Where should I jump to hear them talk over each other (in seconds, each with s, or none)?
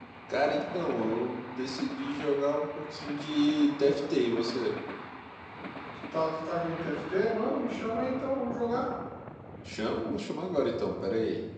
none